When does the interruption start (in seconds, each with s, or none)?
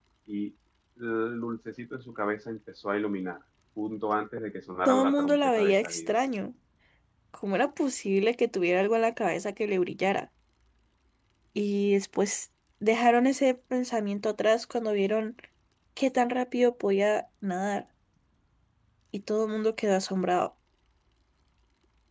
4.8 s